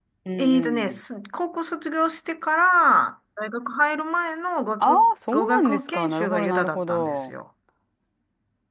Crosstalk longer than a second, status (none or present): present